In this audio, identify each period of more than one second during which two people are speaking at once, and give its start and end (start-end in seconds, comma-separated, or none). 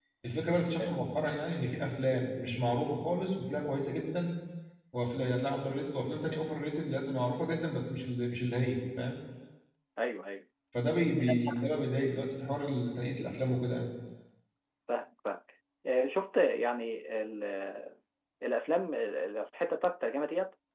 none